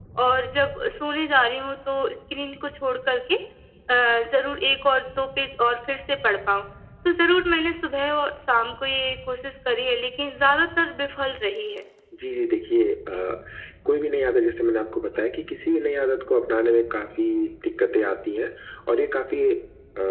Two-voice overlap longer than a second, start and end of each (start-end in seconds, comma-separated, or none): none